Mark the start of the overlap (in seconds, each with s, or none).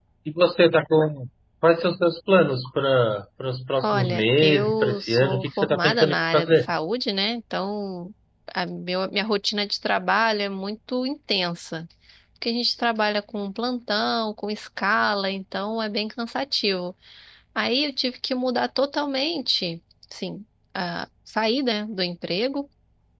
3.8 s